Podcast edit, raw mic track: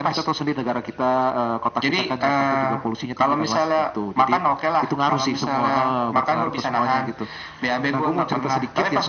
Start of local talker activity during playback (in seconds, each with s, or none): none